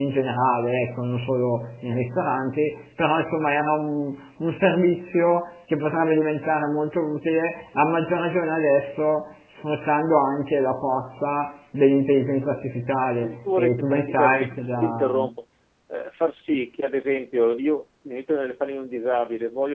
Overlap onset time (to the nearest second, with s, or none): 13 s